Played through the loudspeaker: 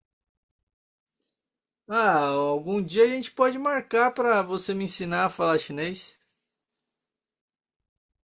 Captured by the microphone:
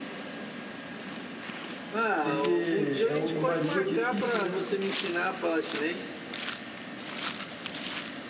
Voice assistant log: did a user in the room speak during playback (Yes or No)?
Yes